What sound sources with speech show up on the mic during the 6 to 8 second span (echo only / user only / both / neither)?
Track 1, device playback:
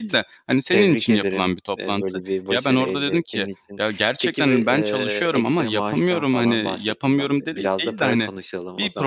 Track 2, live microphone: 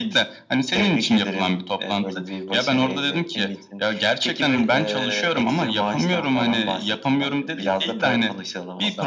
echo only